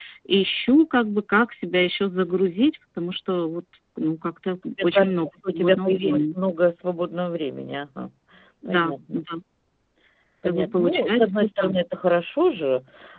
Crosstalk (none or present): present